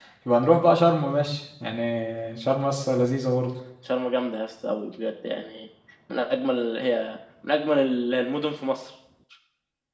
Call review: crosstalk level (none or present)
none